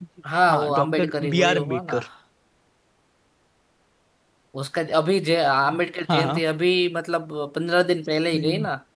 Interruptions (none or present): present